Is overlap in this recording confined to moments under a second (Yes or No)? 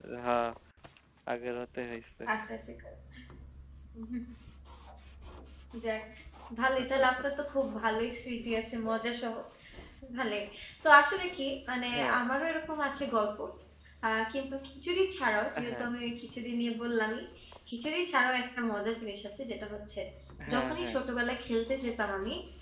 Yes